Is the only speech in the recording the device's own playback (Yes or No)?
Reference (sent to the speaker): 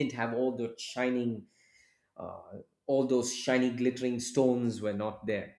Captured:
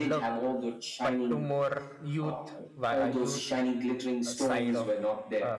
No